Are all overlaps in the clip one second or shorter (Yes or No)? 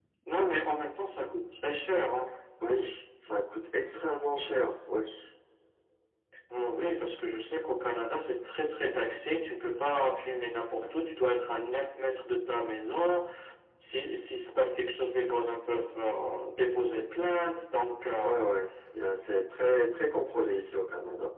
Yes